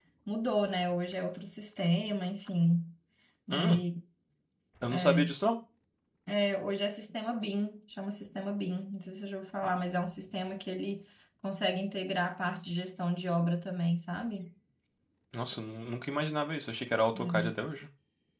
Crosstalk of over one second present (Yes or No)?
No